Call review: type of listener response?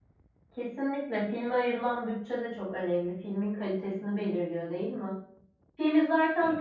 listening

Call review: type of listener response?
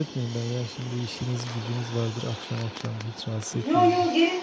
taking over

